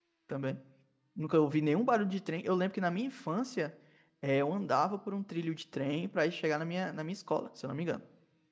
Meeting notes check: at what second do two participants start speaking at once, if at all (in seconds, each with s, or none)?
none